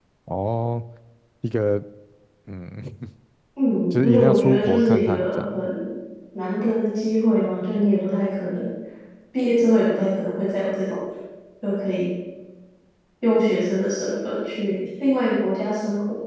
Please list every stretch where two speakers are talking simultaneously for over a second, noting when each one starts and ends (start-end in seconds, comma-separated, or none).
3.9-5.7